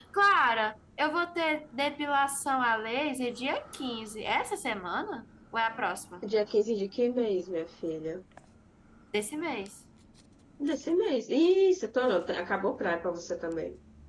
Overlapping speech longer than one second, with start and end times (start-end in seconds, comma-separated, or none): none